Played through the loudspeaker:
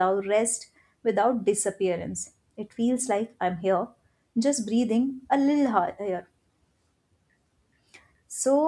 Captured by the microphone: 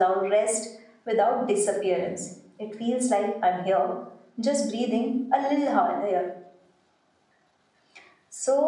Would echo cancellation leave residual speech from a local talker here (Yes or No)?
No